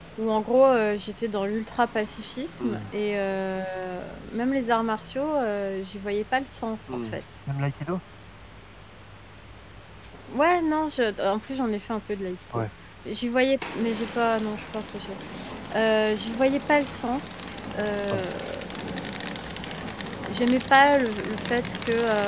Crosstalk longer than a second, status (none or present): none